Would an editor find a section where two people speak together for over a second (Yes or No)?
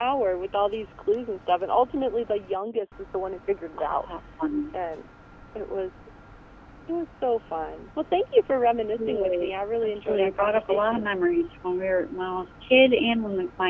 Yes